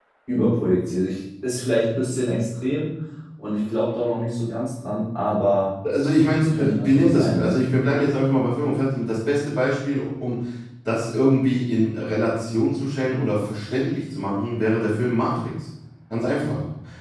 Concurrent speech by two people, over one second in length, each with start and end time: 6.4-7.6

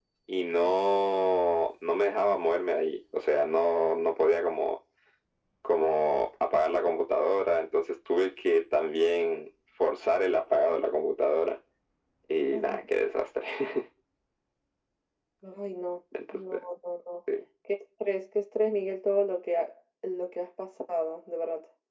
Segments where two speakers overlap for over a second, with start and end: none

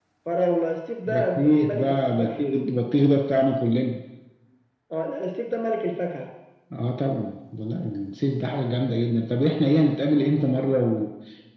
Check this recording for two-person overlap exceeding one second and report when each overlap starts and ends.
1.1-2.4

